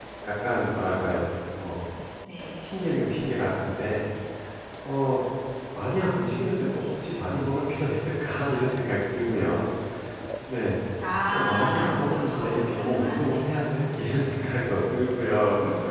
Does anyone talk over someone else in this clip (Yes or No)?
Yes